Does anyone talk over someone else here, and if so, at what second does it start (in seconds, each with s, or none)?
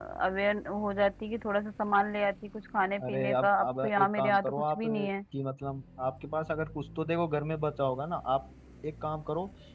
3.0 s